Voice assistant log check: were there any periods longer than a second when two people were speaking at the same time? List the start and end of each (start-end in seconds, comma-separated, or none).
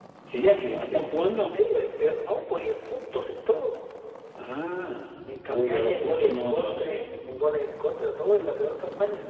5.5-7.0